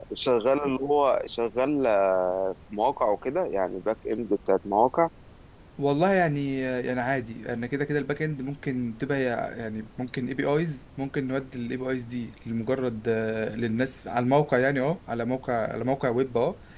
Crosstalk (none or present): none